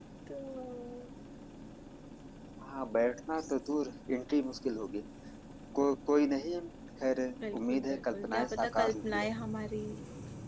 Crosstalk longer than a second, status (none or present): present